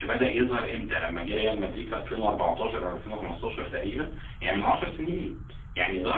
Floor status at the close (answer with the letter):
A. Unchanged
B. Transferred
A